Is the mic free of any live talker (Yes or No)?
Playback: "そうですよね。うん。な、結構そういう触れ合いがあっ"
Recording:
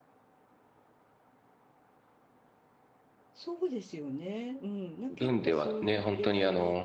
No